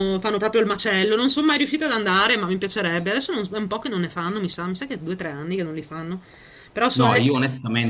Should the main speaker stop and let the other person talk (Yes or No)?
Yes